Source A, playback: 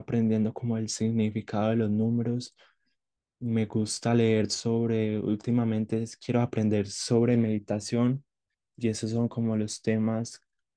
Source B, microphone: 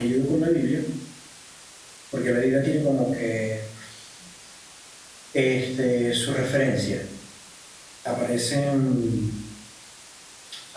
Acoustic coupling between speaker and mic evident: No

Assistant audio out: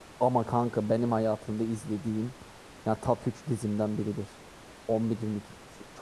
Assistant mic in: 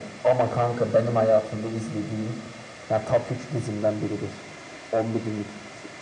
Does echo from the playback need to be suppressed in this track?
Yes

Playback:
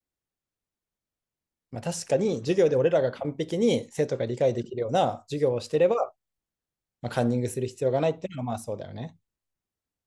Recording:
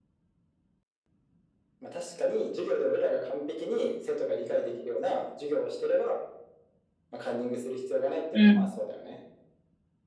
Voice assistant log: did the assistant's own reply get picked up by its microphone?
Yes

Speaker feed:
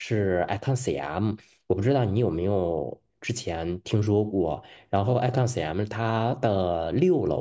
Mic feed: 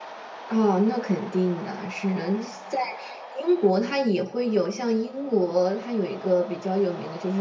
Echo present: No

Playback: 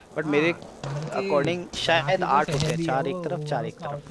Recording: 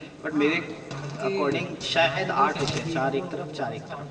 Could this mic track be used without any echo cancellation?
No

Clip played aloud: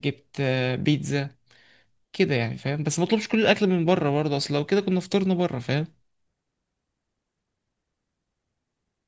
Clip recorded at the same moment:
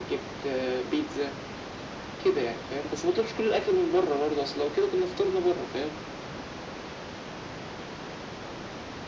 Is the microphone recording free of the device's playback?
No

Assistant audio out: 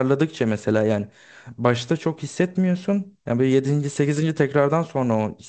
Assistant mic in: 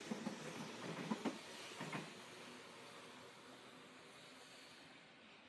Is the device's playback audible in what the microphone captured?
No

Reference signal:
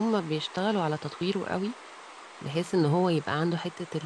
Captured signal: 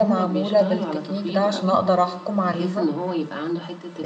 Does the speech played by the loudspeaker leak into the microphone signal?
Yes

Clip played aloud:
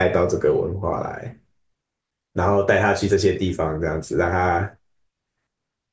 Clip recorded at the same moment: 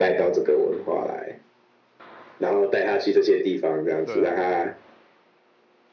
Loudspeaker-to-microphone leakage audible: Yes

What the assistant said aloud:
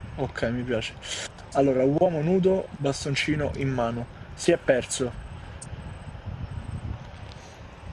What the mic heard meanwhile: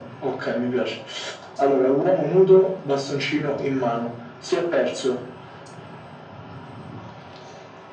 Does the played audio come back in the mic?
Yes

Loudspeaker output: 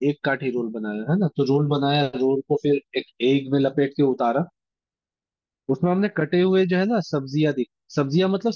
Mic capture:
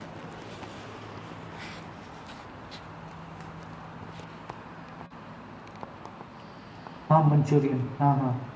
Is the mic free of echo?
Yes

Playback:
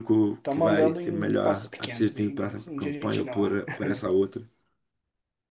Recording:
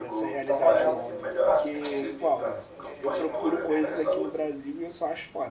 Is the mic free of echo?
No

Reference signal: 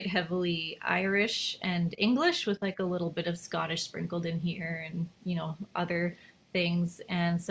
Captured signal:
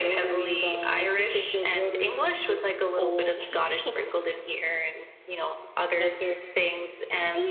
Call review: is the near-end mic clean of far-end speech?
No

